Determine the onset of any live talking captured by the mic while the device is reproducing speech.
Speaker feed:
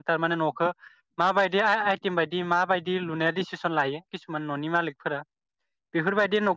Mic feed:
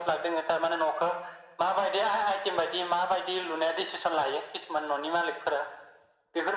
none

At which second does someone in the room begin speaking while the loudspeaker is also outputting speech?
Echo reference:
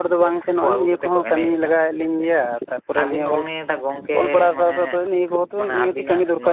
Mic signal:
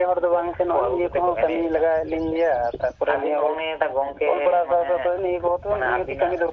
none

